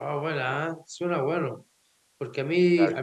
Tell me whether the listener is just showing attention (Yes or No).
Yes